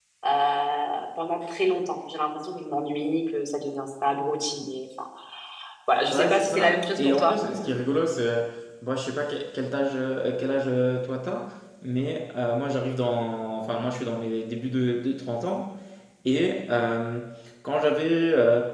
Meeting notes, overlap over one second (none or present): present